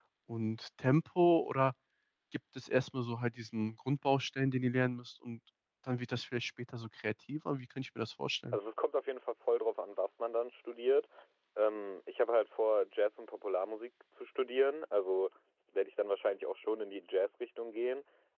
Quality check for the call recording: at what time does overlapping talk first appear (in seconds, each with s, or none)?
none